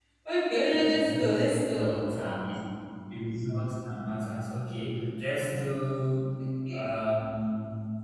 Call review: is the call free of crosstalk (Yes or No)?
No